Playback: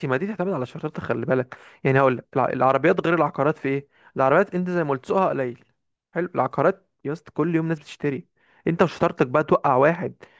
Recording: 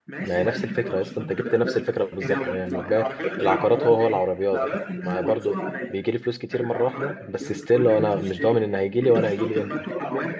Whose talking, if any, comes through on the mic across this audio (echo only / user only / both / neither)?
both